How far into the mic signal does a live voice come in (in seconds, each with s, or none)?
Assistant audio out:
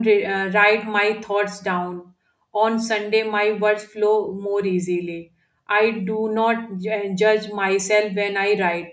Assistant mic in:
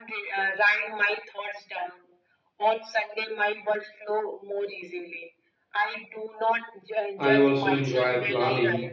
7.2 s